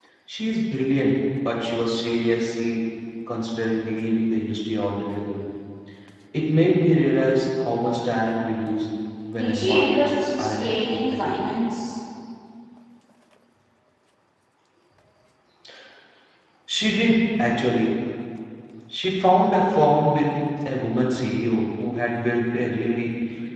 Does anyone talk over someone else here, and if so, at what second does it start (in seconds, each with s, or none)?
9.3 s